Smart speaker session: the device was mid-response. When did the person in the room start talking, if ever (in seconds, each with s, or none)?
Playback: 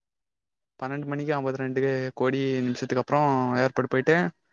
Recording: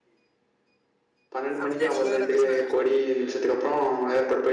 1.6 s